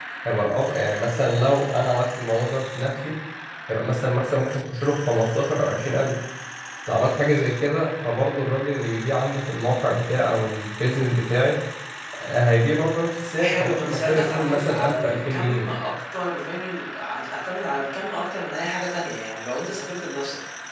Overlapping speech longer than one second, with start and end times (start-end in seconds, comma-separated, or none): 13.3-15.7